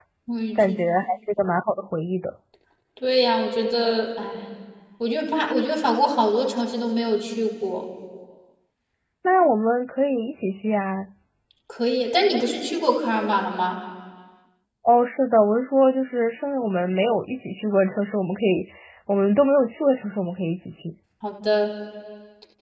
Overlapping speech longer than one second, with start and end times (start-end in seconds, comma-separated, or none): none